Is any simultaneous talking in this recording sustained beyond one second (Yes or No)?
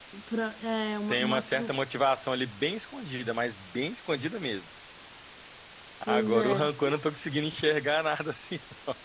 Yes